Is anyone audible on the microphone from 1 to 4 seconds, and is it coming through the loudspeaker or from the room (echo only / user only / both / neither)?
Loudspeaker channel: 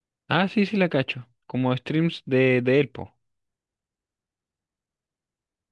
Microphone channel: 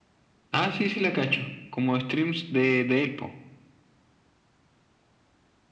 echo only